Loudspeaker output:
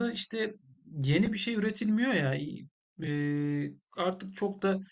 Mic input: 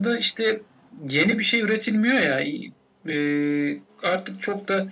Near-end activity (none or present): none